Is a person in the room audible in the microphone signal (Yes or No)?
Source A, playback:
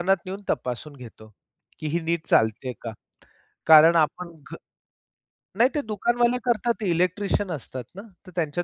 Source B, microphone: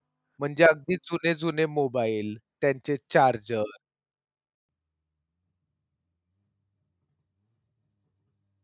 Yes